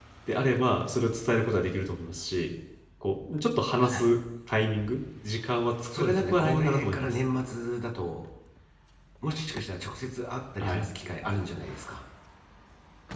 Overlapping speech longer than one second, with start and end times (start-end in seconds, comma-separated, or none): 6.0-7.2